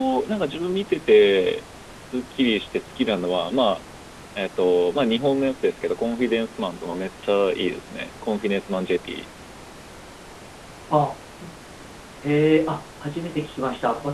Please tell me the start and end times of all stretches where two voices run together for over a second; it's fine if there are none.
none

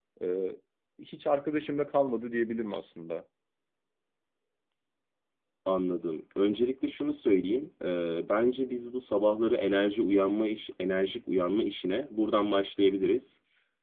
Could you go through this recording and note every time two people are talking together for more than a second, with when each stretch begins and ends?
none

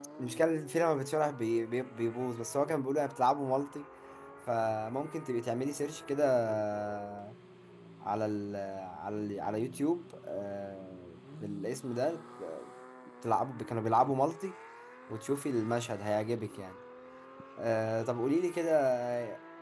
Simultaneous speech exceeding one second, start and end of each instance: none

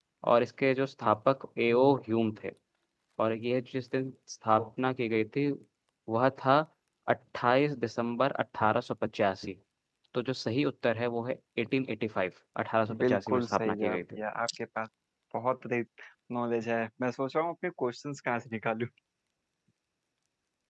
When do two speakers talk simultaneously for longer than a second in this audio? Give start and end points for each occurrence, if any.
13.0-14.2

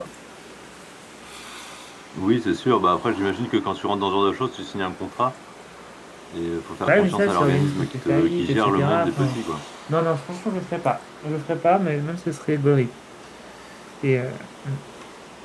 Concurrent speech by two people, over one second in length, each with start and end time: 6.9-9.4

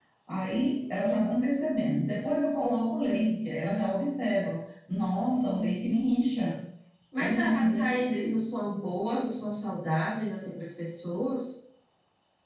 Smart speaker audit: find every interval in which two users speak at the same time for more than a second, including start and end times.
7.2-8.5

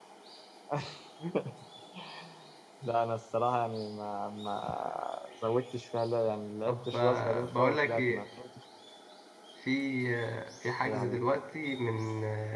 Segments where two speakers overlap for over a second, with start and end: 6.7-8.2

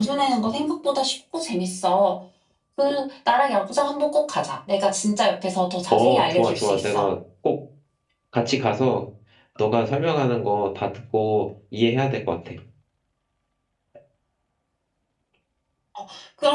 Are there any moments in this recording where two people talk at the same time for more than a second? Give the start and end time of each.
5.9-7.1

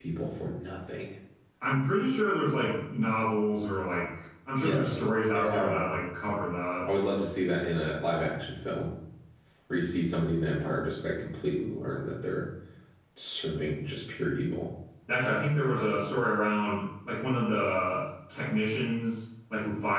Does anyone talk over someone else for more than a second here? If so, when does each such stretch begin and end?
4.6-5.8

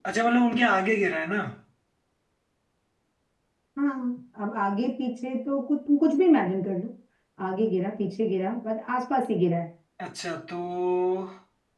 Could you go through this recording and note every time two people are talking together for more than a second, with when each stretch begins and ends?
none

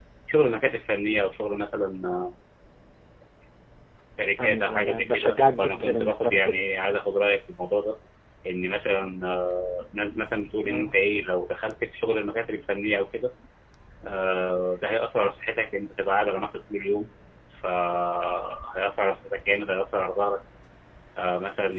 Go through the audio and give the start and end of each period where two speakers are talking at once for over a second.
4.4-6.6

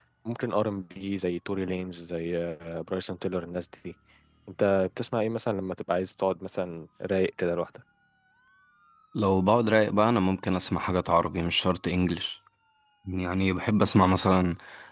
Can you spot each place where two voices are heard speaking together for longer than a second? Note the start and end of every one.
none

